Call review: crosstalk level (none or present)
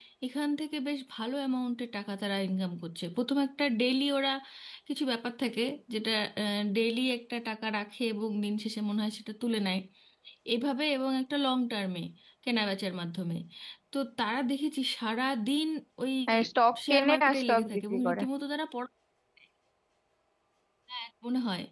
present